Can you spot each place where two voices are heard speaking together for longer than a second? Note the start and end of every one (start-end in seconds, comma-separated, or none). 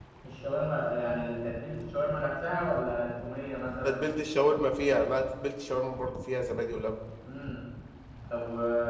none